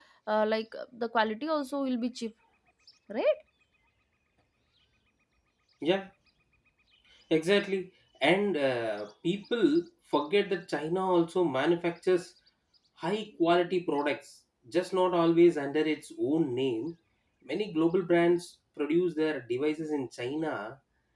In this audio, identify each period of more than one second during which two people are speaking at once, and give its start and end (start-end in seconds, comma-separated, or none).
none